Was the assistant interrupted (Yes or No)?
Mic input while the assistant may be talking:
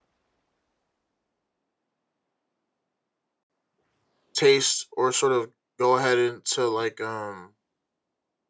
Yes